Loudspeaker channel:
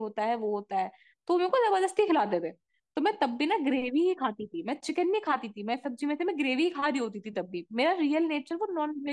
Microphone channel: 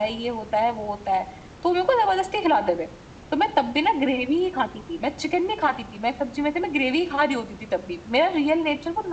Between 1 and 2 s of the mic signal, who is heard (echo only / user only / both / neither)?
echo only